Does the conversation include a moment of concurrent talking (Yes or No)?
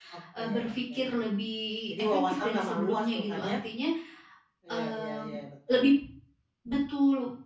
Yes